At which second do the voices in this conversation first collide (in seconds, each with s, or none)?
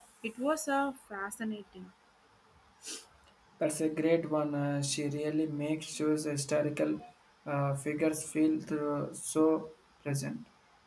none